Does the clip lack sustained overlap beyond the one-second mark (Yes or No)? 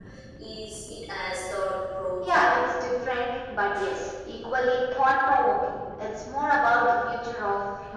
Yes